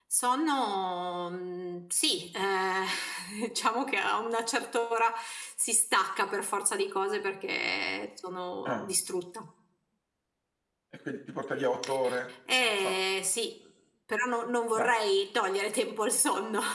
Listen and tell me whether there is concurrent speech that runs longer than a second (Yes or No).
No